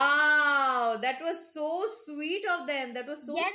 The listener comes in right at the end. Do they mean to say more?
Yes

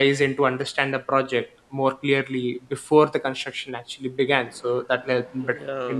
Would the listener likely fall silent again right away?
Yes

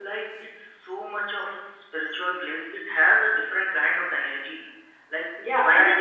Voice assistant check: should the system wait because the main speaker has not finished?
No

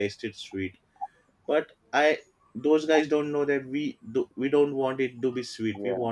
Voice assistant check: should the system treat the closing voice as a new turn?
No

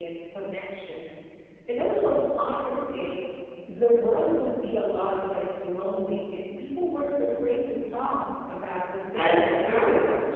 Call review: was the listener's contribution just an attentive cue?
No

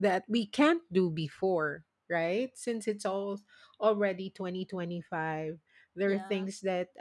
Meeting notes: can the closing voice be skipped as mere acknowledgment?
Yes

